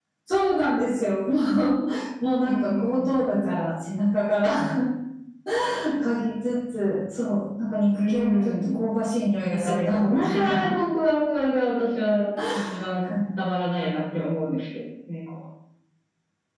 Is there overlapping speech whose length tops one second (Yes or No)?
Yes